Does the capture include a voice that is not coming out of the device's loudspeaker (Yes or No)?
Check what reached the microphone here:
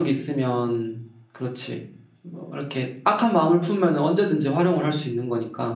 Yes